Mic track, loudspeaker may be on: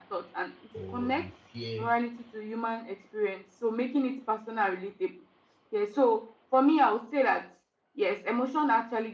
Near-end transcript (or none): or you fear